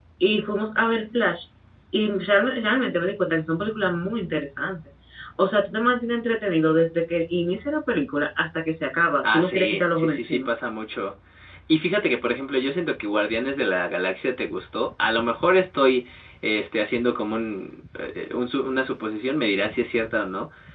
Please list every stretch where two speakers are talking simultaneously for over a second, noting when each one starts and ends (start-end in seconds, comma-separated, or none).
9.2-10.5